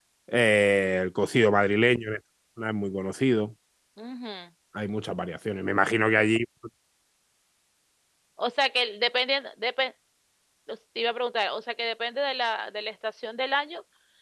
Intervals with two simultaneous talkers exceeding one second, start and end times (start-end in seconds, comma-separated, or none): none